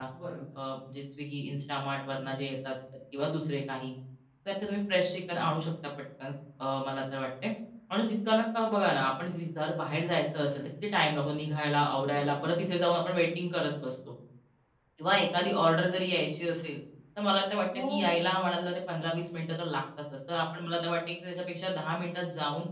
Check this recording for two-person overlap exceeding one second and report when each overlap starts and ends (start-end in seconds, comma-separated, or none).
none